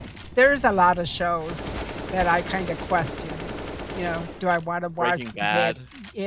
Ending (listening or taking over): listening